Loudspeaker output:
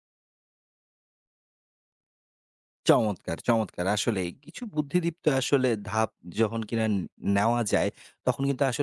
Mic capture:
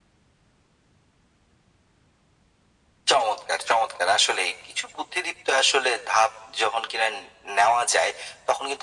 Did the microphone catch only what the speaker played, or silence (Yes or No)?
Yes